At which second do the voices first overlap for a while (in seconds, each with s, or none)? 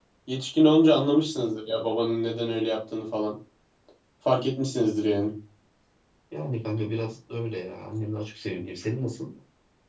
none